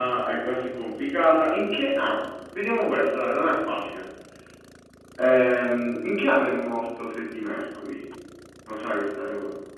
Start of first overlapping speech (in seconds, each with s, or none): none